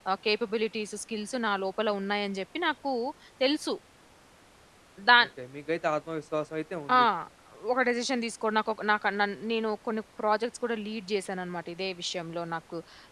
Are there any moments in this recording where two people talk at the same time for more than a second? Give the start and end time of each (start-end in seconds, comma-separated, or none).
none